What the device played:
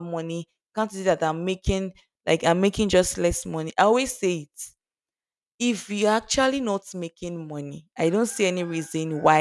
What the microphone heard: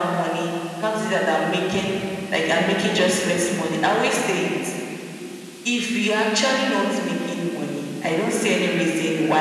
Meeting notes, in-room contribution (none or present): none